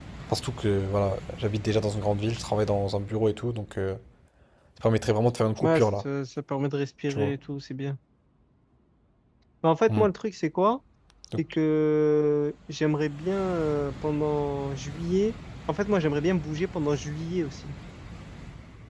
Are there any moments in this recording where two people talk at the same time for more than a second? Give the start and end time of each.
none

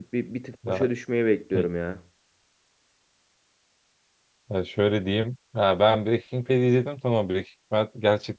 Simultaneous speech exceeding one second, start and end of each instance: none

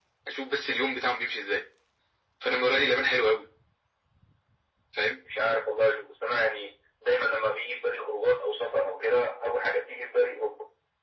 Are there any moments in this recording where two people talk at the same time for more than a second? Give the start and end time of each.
none

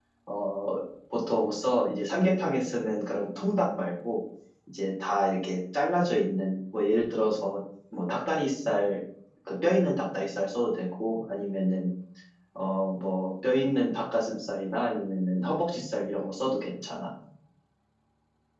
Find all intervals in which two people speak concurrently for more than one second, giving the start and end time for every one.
none

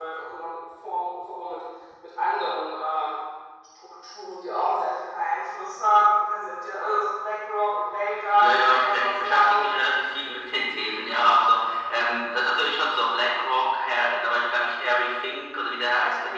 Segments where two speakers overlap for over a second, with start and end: 8.4-9.7

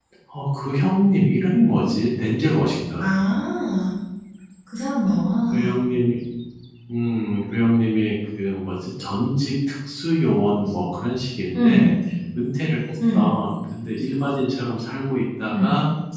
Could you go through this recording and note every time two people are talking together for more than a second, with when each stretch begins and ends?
none

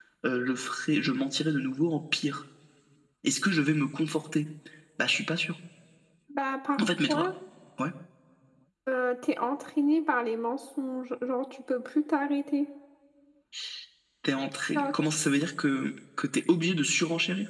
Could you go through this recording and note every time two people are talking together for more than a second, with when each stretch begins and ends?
none

